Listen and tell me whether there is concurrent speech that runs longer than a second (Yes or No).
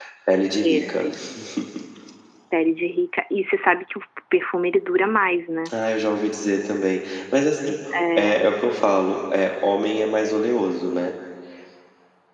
No